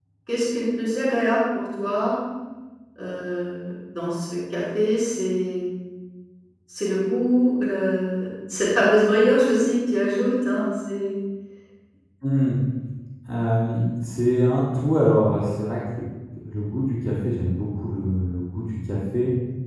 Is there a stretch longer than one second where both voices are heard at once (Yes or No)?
No